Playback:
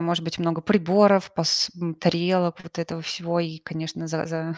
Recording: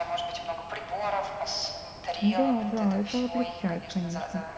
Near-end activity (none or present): present